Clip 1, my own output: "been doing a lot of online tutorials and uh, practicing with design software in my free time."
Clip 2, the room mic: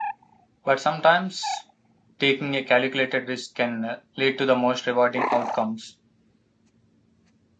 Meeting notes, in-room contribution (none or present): present